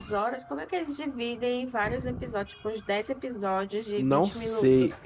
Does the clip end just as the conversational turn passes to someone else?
Yes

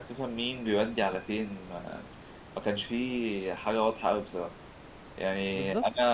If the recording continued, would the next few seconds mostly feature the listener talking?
No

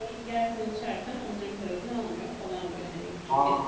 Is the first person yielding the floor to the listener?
No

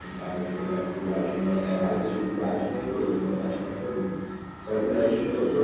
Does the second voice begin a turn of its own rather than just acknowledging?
No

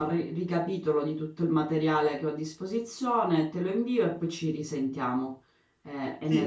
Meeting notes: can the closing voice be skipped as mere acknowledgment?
No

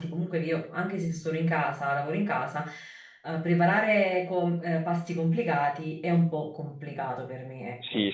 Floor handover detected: Yes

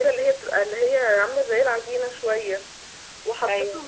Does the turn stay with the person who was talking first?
Yes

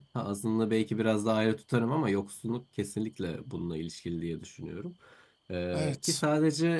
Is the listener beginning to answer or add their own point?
No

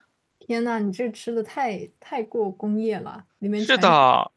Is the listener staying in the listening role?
No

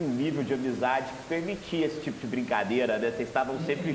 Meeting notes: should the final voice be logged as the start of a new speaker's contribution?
Yes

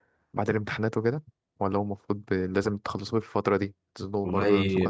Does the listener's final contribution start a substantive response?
Yes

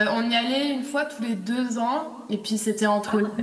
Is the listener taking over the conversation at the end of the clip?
No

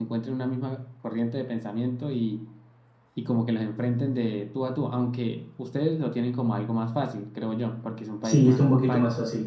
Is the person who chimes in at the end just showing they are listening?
No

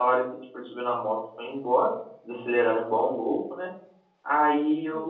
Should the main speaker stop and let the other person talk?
No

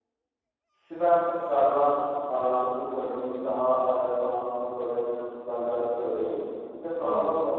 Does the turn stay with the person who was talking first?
Yes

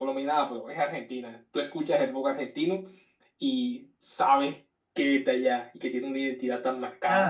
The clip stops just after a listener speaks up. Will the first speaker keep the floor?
No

